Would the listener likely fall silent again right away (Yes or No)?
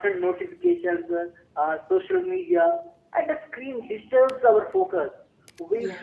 Yes